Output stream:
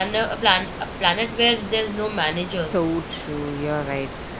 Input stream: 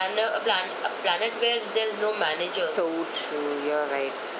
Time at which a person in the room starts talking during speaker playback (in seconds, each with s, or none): none